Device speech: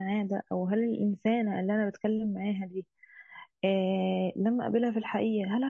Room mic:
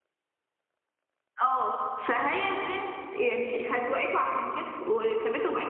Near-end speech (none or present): present